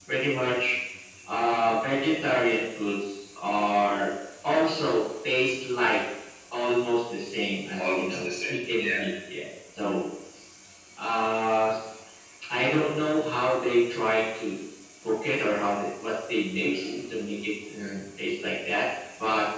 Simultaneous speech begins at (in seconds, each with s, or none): 7.8 s